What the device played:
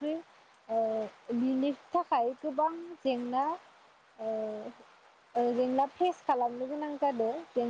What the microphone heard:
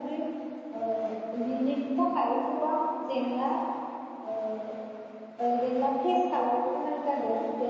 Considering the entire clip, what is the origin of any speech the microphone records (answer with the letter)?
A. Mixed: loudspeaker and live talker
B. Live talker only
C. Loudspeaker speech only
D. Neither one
C